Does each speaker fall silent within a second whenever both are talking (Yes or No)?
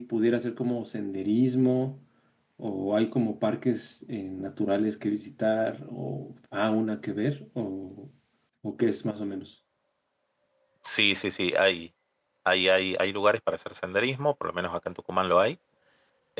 Yes